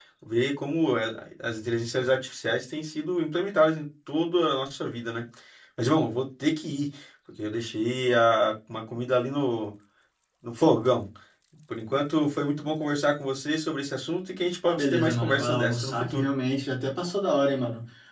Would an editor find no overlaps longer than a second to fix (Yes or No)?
No